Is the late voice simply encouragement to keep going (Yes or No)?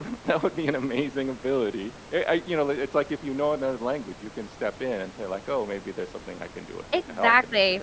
No